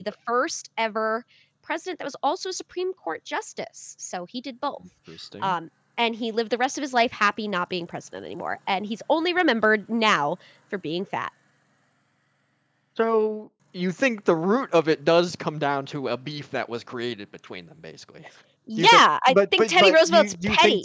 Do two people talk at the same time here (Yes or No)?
Yes